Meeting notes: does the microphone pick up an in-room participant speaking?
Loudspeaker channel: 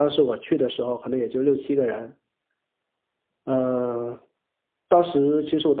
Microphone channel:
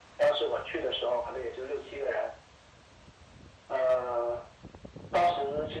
No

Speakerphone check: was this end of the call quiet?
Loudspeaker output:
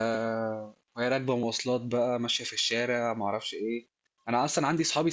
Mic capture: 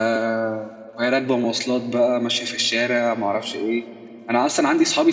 Yes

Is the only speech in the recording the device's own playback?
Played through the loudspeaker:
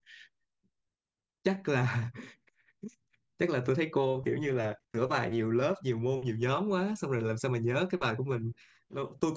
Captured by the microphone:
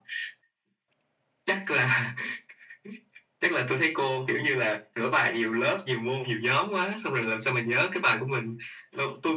Yes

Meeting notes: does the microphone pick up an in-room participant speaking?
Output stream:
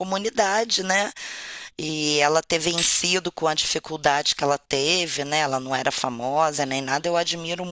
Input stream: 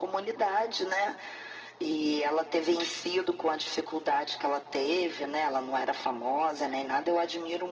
No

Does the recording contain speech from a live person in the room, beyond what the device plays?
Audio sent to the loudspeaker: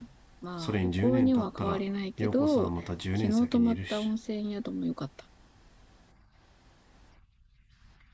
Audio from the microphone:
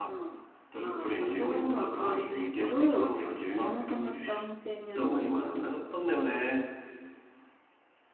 Yes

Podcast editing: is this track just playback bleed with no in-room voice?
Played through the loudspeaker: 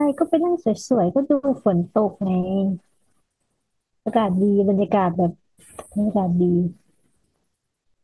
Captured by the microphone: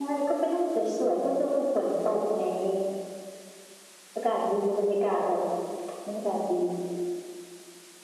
Yes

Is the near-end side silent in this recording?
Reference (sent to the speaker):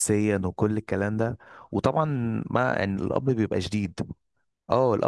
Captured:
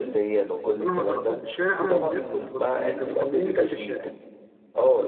No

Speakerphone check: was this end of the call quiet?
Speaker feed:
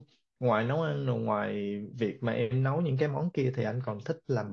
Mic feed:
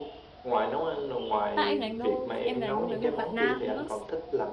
No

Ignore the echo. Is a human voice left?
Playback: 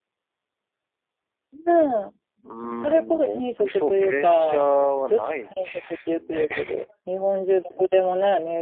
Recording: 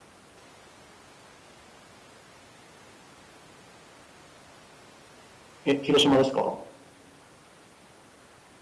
Yes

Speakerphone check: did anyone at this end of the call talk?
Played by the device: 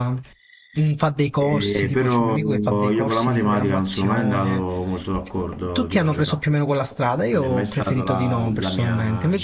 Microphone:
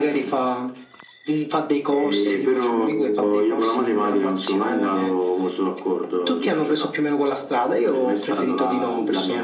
No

